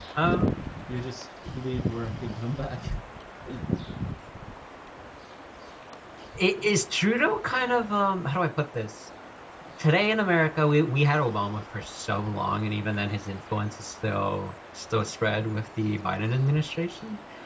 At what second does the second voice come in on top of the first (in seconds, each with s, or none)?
none